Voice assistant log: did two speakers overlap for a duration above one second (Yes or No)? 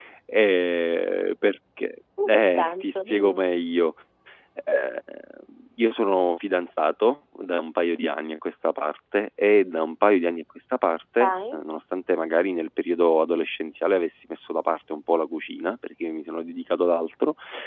Yes